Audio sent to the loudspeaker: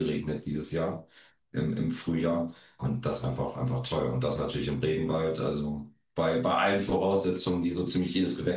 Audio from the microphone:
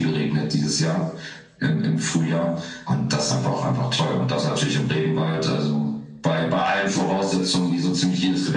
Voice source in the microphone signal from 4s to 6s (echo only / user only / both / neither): echo only